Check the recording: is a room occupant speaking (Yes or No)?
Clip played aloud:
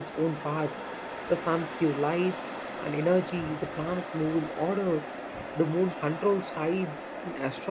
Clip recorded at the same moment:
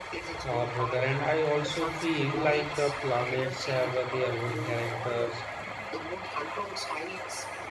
Yes